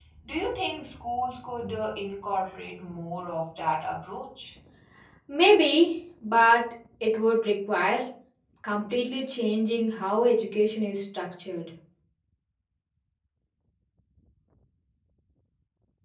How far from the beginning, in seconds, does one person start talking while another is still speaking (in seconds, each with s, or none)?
none